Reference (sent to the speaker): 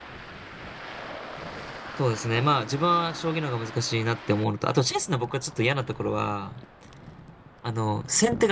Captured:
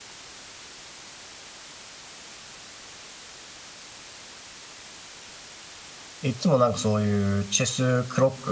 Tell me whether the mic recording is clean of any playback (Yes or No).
Yes